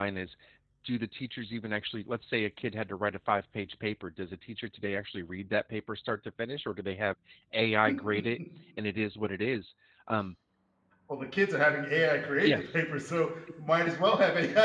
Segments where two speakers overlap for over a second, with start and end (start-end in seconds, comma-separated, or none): none